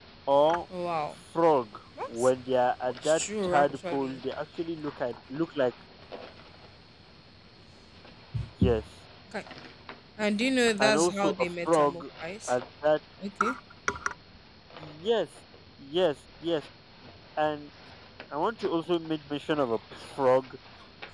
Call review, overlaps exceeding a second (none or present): present